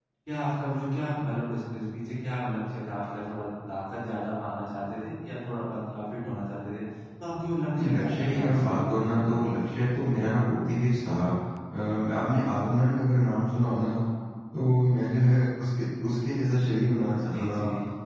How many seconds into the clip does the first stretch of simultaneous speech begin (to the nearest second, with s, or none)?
8 s